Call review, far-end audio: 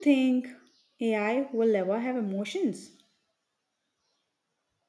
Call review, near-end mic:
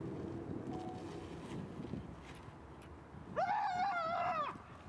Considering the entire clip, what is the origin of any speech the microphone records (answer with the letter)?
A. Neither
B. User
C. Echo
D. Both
A